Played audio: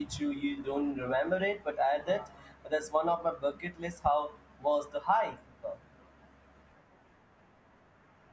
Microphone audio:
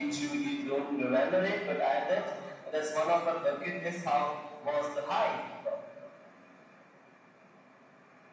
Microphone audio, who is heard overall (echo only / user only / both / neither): echo only